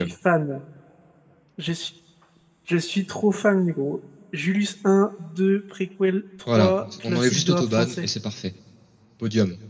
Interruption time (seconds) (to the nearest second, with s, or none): 6 s